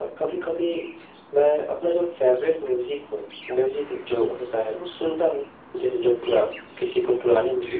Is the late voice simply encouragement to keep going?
No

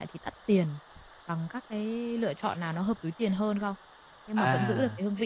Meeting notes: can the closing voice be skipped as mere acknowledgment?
Yes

